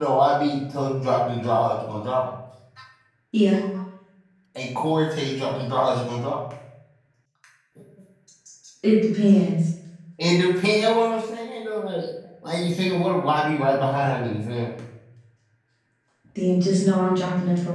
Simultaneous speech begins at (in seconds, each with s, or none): none